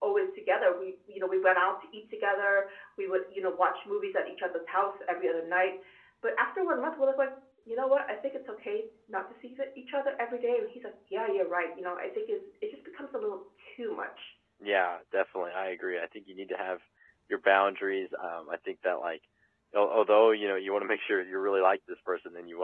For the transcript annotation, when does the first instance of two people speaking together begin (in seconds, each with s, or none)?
none